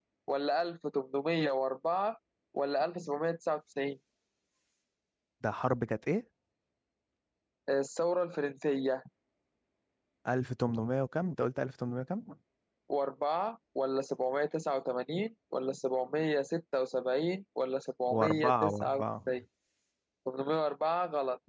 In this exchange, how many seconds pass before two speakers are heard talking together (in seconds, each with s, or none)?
18.1 s